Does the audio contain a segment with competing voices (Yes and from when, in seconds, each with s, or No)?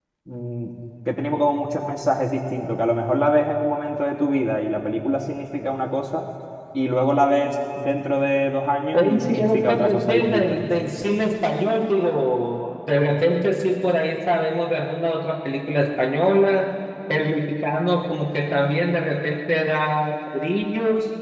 Yes, from 8.9 s